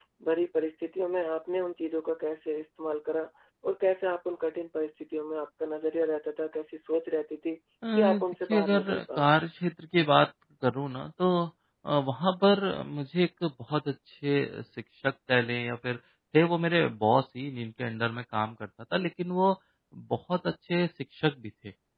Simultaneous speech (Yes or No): Yes